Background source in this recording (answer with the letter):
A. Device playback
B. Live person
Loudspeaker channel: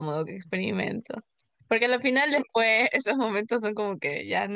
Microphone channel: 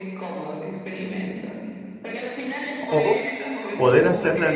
A